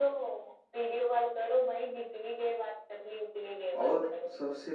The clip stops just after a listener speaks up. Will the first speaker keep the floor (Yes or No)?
No